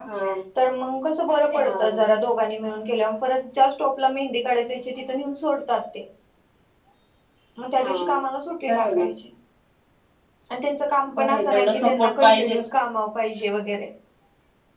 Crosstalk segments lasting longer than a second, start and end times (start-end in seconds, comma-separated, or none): 11.2-12.7